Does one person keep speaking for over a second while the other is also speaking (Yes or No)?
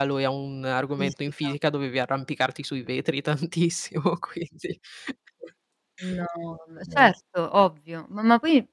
No